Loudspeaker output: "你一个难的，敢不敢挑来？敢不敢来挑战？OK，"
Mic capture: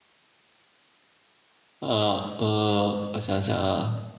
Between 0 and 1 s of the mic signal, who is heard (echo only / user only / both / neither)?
neither